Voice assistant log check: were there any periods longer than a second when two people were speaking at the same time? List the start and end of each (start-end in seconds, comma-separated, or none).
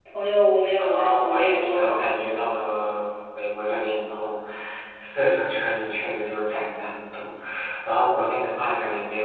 0.8-2.1